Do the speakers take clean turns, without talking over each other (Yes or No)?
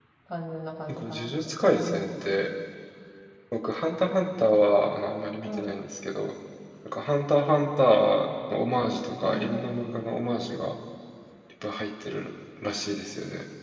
No